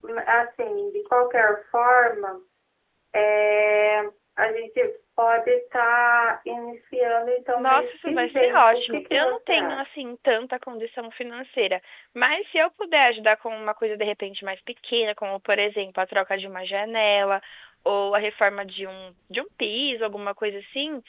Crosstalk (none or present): present